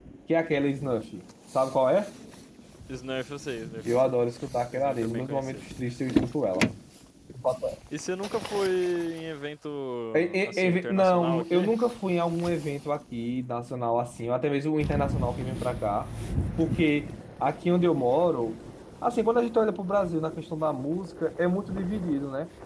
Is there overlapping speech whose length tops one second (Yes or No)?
Yes